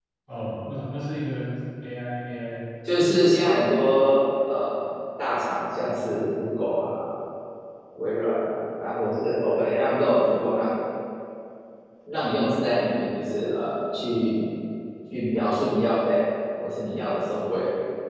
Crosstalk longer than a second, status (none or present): none